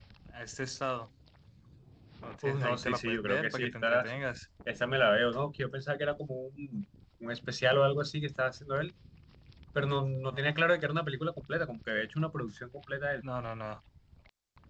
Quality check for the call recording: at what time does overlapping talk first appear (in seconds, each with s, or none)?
2.4 s